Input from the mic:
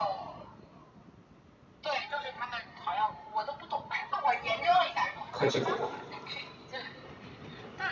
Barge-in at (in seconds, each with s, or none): 5.3 s